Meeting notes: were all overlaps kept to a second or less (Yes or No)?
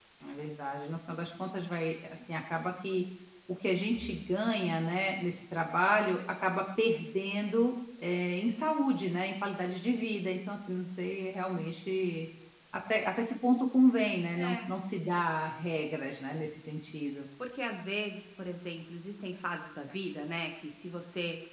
Yes